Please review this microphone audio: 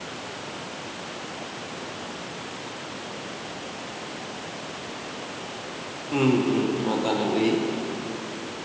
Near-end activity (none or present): present